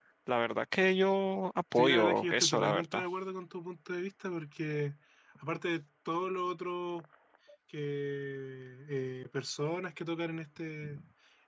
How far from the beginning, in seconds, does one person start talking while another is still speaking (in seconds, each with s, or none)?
1.8 s